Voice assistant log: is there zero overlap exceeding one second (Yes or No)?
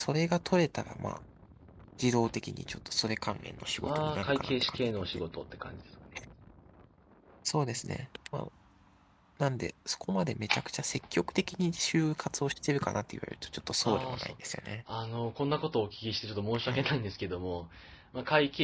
No